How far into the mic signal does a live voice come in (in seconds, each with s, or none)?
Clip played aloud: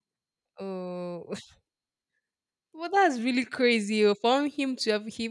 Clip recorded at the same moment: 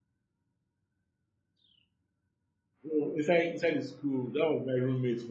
2.9 s